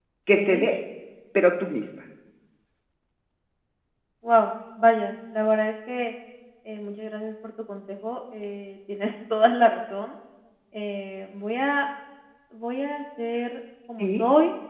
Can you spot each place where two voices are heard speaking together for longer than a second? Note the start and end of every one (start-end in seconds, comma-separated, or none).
none